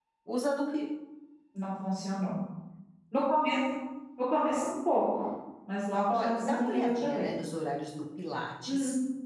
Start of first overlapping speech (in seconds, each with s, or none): 6.1 s